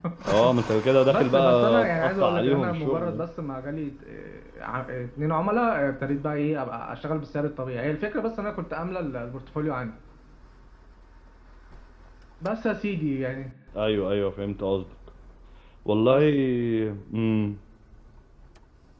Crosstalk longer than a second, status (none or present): present